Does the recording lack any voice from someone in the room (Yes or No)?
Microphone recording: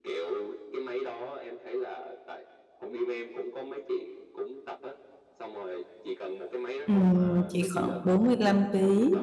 No